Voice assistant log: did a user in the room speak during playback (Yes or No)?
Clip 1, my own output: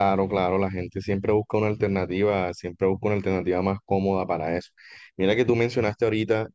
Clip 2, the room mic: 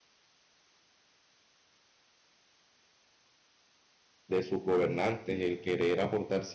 Yes